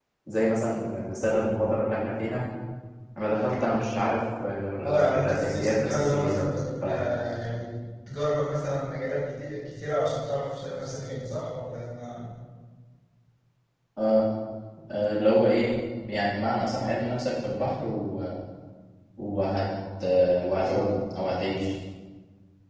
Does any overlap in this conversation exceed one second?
Yes, from 5.1 s

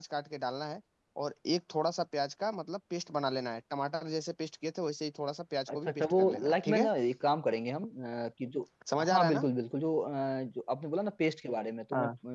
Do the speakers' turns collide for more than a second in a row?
Yes, from 5.7 s

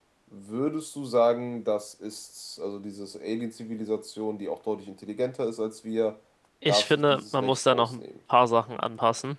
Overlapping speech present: Yes, from 6.7 s

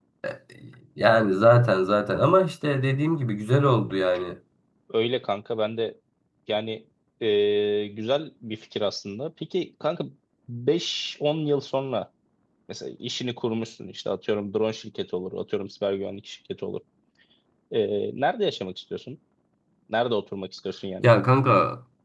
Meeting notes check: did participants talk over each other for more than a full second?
No

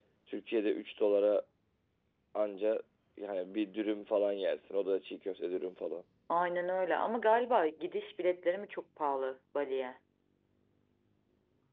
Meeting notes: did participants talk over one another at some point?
No

